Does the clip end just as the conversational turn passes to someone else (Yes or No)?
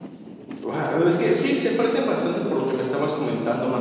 Yes